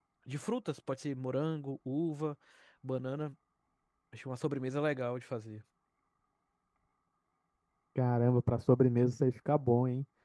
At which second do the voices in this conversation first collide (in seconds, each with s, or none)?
none